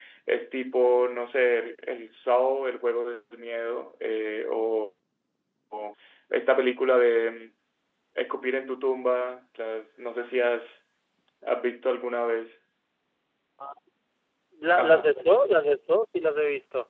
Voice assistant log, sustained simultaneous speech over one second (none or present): none